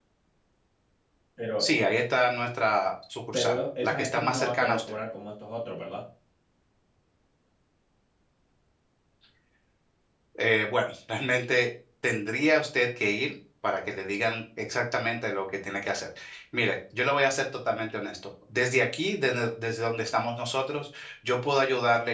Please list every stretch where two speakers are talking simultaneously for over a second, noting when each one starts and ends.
3.3-4.9

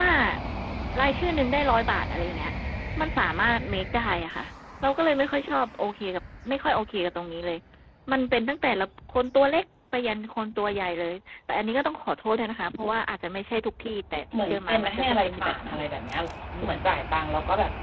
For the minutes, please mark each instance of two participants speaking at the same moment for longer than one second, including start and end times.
14.4-15.7

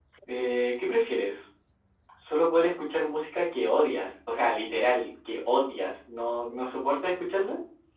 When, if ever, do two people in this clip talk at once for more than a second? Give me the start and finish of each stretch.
none

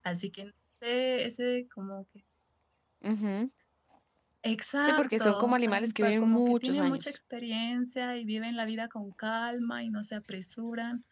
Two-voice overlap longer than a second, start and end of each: 4.9-7.2

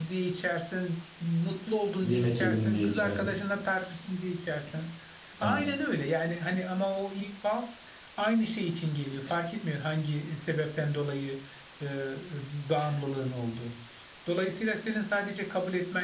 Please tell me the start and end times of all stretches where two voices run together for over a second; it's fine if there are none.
2.0-3.3

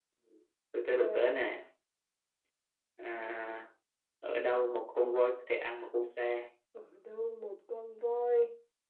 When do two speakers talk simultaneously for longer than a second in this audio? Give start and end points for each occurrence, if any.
none

